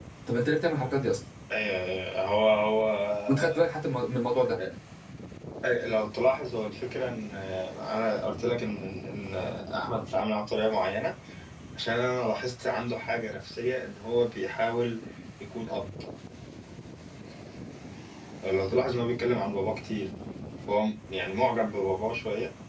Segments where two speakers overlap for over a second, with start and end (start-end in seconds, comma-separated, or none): none